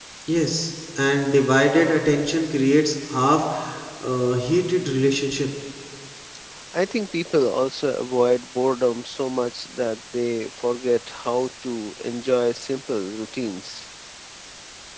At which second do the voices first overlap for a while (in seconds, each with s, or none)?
none